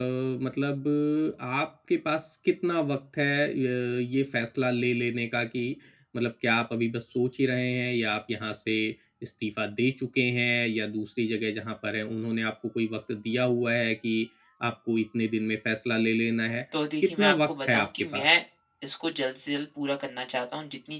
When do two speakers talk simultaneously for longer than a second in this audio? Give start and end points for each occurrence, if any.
17.0-18.3

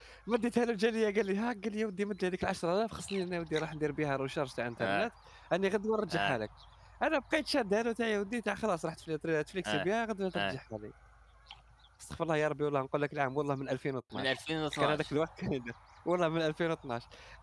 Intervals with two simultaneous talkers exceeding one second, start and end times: none

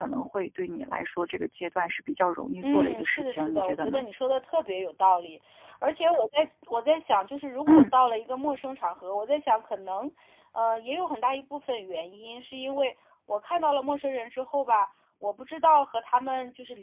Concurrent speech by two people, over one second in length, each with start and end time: 2.6-4.0

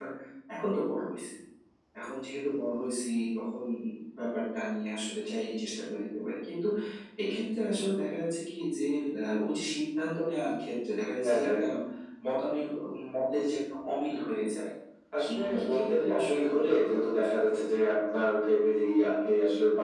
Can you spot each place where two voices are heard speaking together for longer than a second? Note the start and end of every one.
15.3-17.6

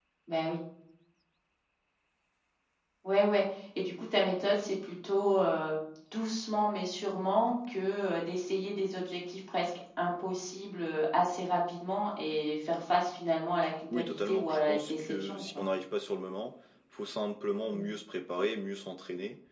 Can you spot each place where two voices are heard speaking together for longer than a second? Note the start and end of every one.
13.9-15.6

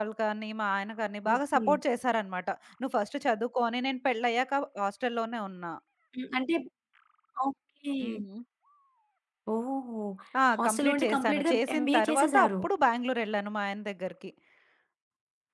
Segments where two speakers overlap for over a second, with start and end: 10.6-12.5

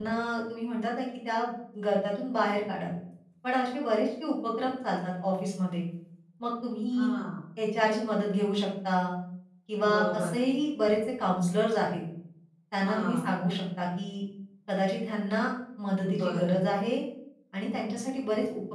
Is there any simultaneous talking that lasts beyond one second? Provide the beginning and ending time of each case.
none

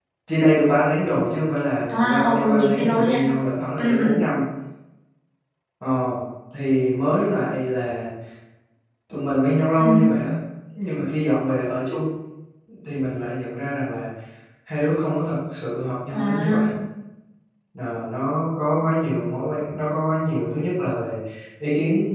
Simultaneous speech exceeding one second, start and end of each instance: 1.9-3.2

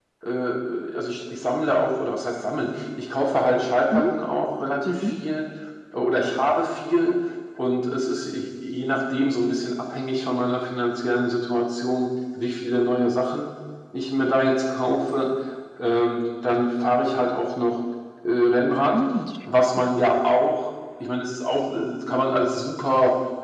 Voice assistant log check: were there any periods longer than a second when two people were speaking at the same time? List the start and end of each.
none

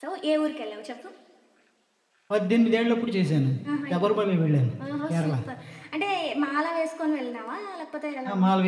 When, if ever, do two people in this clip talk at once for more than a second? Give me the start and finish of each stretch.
none

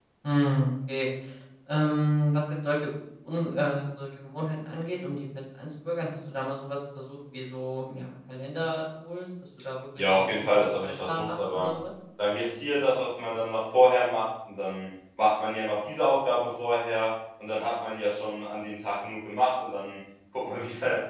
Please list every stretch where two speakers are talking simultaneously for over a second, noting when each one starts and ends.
10.0-11.7

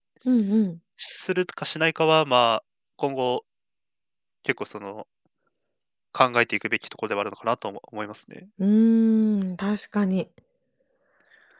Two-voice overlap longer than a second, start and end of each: none

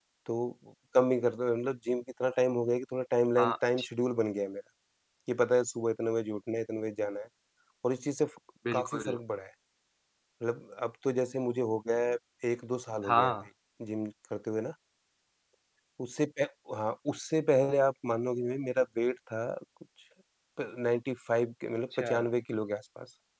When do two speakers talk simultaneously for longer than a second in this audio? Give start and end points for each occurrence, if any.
none

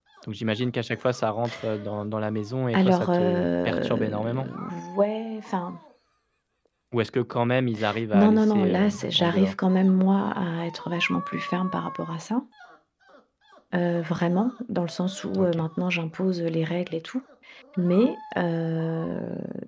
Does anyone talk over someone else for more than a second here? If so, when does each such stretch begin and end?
2.7-4.5, 8.1-9.6

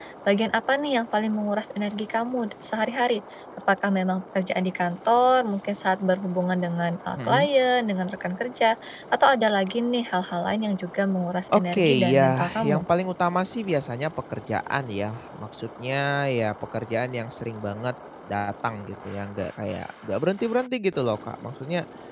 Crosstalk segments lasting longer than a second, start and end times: 11.5-12.8

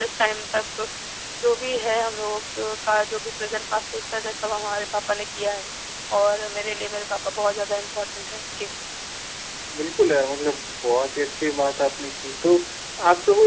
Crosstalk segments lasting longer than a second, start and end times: none

